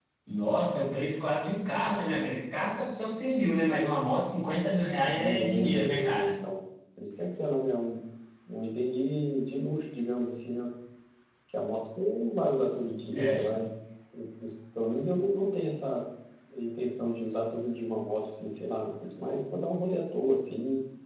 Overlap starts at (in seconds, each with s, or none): 5.0 s